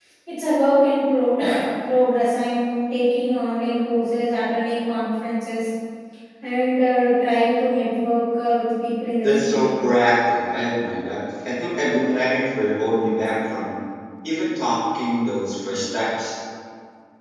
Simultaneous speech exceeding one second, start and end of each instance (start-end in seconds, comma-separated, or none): none